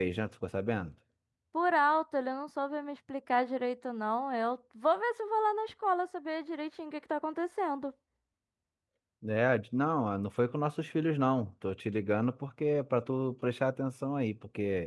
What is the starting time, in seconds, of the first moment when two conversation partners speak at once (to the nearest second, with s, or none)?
none